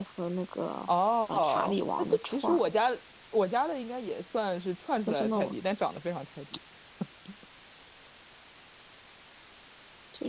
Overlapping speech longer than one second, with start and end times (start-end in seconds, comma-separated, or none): 1.3-2.7